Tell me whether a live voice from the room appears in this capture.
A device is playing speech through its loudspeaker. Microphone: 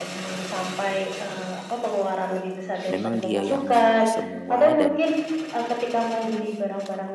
Yes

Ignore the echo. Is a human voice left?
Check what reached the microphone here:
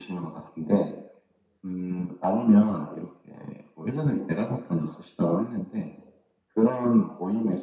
No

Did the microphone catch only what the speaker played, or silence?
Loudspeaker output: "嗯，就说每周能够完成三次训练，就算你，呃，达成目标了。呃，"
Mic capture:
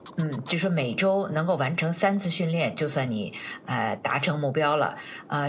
Yes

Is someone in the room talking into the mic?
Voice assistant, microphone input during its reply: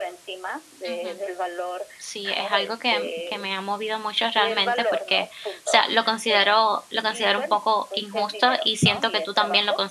Yes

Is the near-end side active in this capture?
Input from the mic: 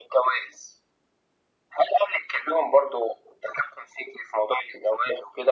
No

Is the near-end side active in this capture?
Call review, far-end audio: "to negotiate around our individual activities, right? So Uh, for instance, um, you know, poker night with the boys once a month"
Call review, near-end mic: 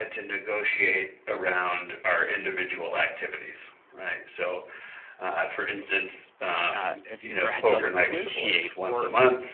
Yes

